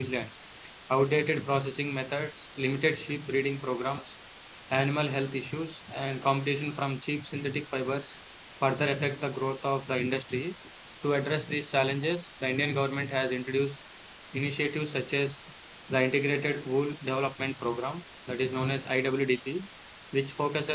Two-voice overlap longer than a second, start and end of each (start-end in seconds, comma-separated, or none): none